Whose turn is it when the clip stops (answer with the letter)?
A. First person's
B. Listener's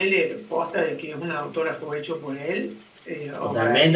B